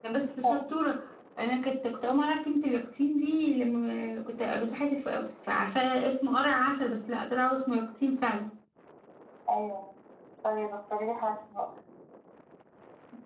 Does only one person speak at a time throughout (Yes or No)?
Yes